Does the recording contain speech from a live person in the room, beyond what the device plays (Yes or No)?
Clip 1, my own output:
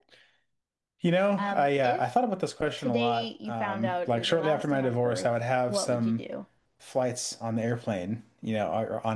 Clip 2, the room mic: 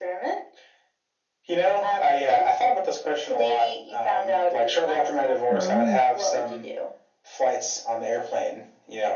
Yes